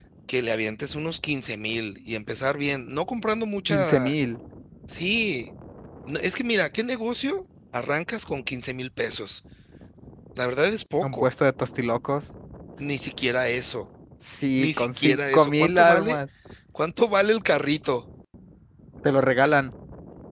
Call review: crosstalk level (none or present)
present